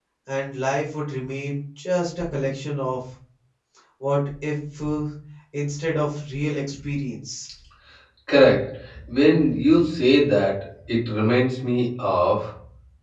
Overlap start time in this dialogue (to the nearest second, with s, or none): none